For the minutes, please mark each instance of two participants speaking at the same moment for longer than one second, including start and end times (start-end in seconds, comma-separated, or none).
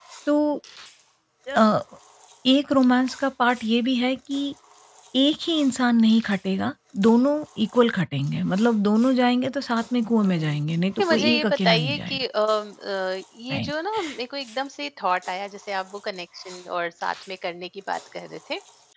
11.0-12.2